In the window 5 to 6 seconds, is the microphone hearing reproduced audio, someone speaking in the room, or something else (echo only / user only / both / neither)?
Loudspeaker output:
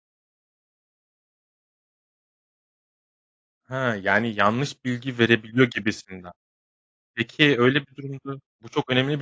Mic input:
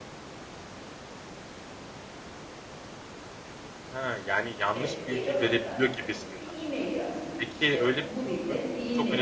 both